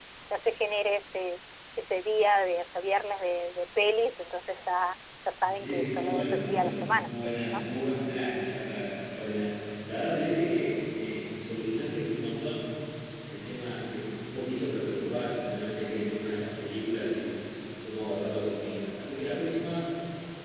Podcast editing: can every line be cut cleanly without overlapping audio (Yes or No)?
No